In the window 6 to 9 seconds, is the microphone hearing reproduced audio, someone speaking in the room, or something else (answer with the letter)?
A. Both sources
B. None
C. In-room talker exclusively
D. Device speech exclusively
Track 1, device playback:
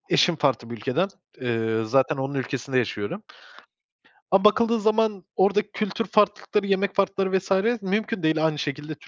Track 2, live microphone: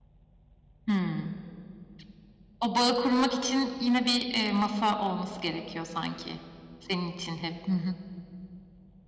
C